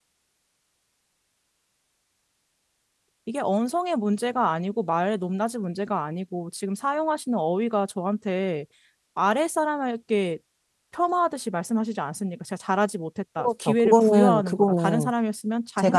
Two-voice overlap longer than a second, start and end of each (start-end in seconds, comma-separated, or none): 13.4-15.1